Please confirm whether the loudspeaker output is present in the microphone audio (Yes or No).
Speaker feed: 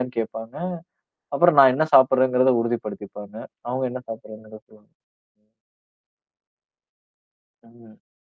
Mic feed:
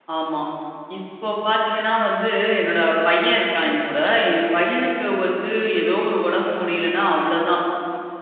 No